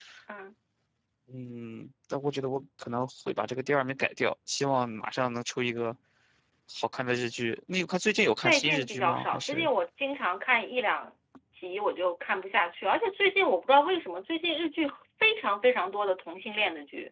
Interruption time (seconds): 8 s

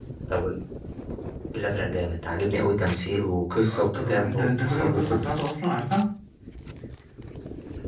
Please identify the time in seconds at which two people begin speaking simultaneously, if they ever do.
4 s

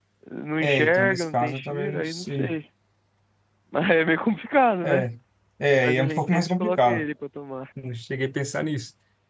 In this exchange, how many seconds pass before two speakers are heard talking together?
1 s

